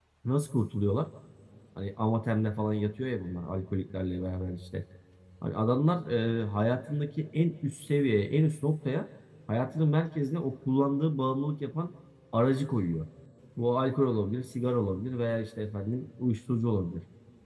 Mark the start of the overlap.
none

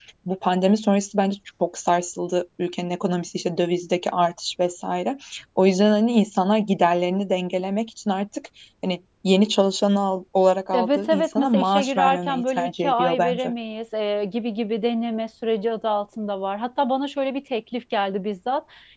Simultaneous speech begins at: 10.7 s

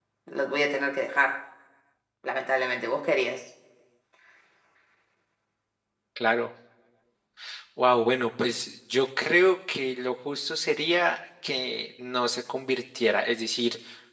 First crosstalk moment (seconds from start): none

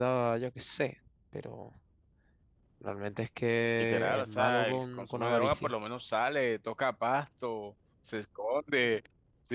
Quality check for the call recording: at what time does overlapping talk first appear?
3.8 s

